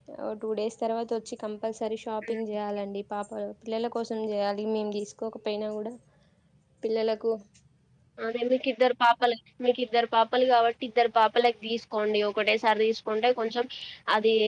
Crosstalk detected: No

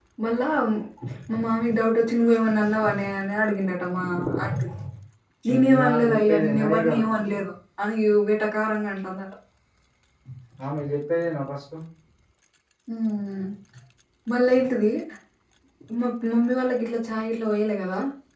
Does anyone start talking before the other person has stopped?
Yes, from 5.5 s

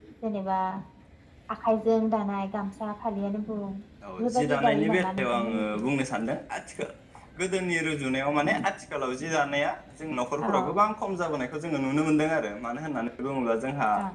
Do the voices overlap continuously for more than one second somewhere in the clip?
Yes, from 4.2 s

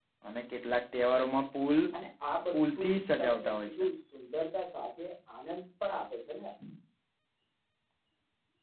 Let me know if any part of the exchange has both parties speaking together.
Yes, from 2.6 s

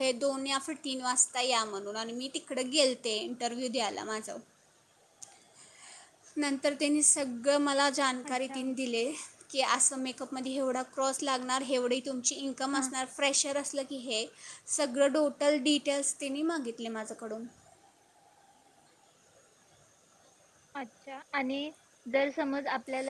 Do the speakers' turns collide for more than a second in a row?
No

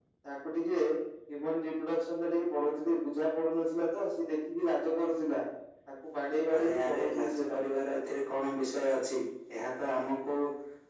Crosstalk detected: Yes, from 6.6 s

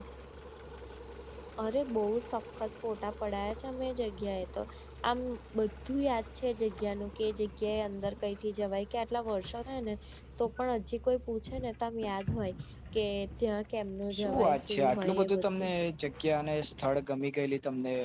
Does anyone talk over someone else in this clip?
Yes, from 14.1 s

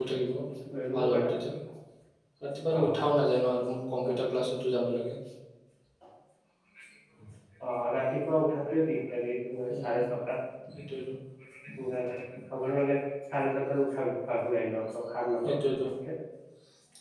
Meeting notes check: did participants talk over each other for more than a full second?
No

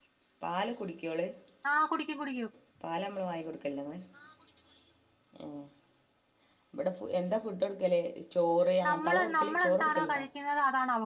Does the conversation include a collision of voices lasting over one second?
Yes, from 8.8 s

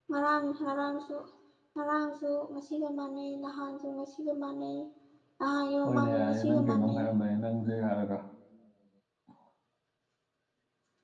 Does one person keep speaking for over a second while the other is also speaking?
Yes, from 5.8 s

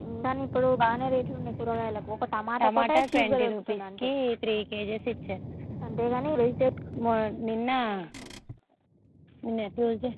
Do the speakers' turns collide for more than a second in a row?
Yes, from 2.6 s

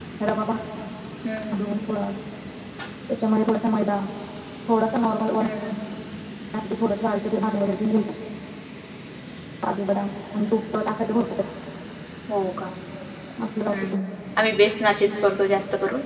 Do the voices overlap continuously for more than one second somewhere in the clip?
No

